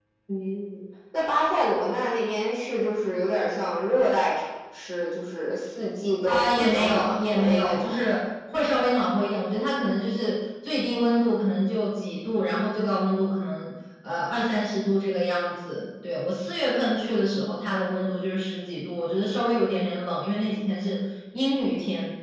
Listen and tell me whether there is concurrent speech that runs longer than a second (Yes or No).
Yes